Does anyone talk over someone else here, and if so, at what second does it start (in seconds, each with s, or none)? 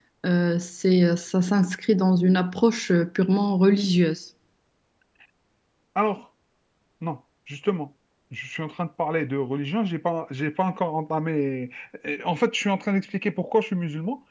none